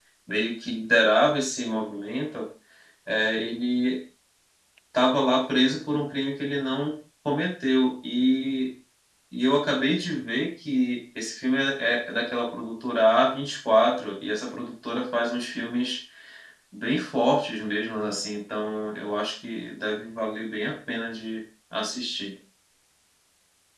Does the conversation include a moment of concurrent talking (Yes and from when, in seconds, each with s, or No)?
No